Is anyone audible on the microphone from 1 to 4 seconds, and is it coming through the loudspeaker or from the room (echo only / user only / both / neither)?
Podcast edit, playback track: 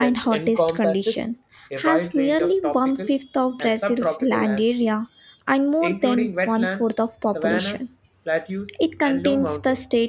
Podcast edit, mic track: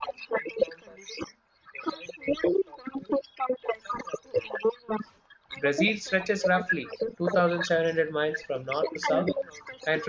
echo only